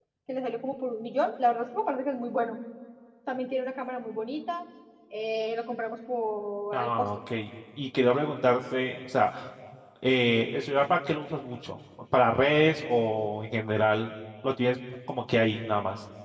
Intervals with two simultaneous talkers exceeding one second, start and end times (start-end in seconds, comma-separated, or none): none